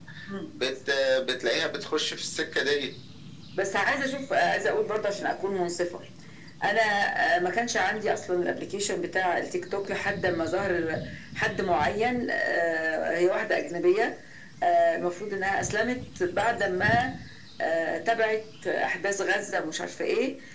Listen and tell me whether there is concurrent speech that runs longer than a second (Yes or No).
No